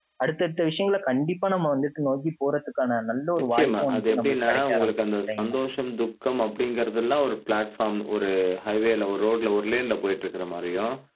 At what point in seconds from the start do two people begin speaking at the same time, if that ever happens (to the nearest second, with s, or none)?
3 s